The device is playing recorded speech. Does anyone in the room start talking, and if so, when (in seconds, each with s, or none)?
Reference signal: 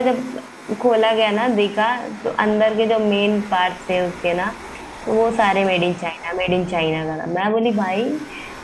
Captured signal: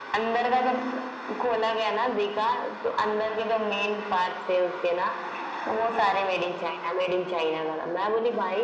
none